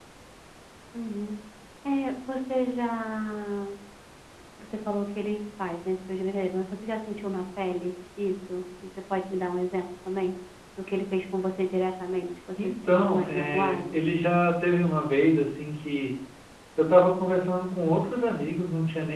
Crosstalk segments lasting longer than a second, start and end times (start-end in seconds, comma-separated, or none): 12.6-14.0